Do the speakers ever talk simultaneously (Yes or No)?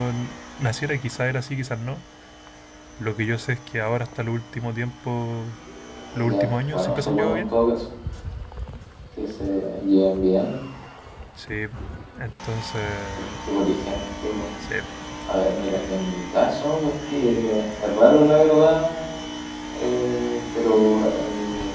Yes